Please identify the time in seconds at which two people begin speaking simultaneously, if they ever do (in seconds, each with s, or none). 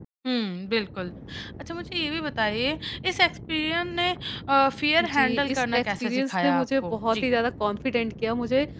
5.1 s